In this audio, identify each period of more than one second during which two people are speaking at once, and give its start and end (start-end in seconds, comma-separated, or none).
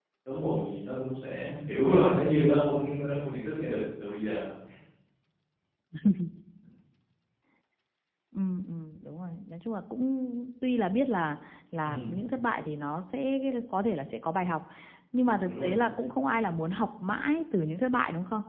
none